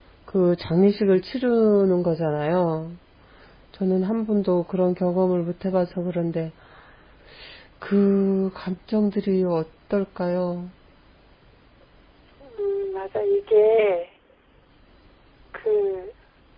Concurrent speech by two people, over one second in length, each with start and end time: none

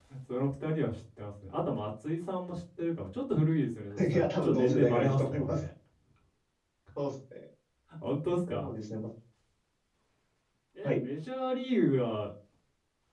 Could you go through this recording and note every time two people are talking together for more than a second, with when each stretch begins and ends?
4.0-5.6

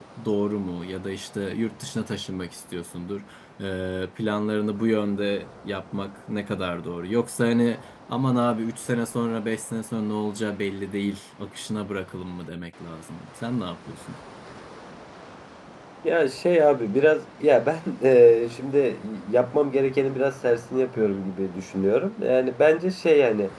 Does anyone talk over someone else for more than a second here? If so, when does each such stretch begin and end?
none

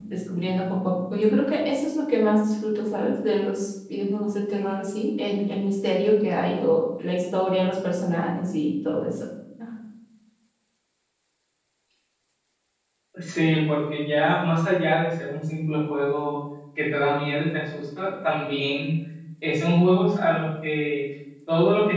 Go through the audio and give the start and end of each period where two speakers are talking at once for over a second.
none

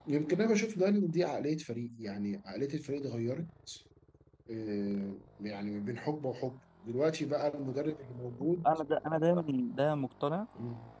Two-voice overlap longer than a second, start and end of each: none

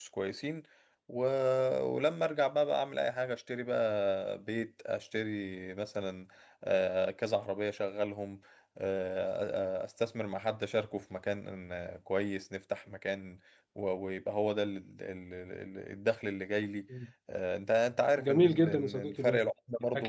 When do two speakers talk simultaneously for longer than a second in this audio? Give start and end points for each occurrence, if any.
18.2-19.4

